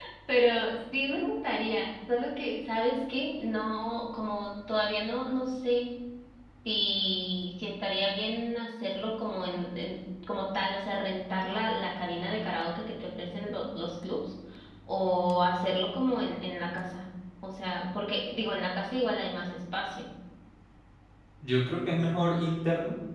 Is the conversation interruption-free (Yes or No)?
Yes